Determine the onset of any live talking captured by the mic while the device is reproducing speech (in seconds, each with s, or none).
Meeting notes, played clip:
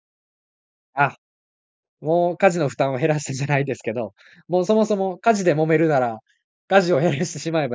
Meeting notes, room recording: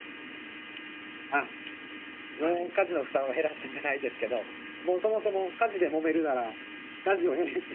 2.4 s